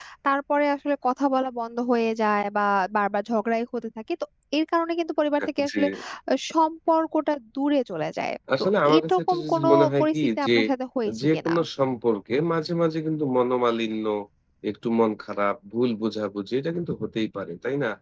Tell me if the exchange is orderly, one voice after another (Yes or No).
No